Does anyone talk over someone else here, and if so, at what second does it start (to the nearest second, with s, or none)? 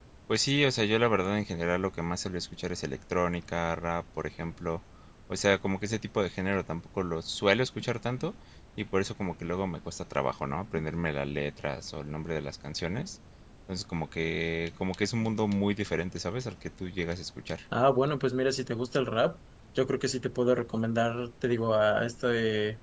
none